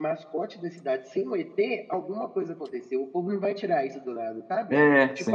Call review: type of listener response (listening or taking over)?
listening